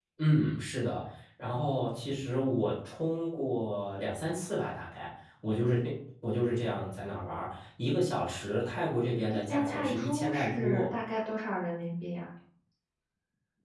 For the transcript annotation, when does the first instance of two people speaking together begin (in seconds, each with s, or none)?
9.5 s